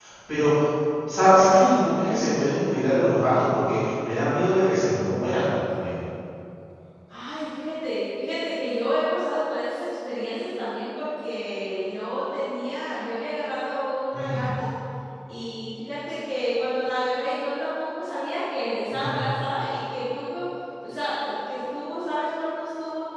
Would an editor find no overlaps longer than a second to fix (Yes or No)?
Yes